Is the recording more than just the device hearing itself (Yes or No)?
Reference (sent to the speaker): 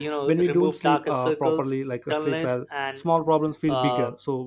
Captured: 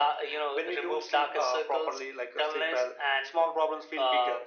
No